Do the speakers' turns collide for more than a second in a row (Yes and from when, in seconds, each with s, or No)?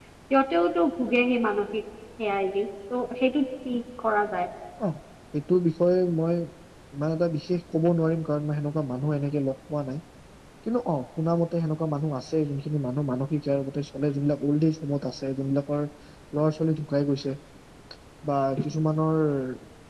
No